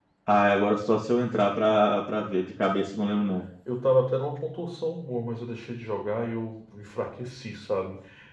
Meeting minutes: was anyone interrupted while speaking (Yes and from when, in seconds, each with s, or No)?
No